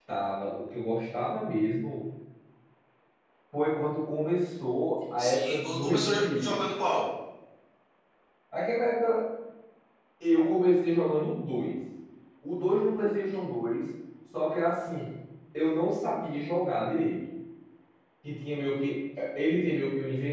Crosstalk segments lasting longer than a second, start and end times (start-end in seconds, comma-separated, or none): 5.2-6.6